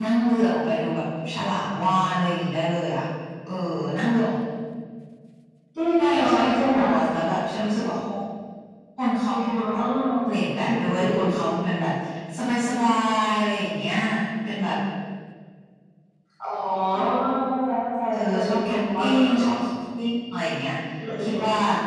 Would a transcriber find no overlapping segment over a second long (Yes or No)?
No